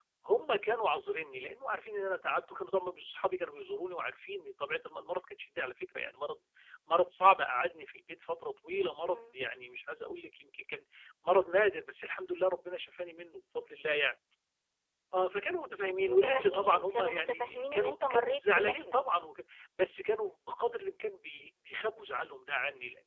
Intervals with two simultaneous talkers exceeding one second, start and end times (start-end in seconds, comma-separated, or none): 16.0-19.0